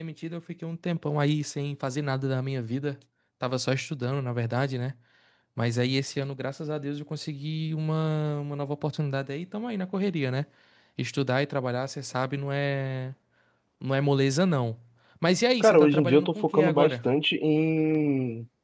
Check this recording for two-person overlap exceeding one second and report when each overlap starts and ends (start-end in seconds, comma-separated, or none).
15.6-16.9